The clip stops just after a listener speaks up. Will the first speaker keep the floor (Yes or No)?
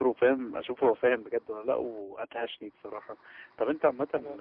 Yes